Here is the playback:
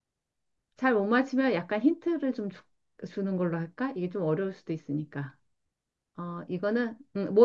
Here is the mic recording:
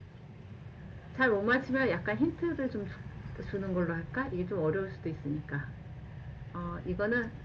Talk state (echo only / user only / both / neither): echo only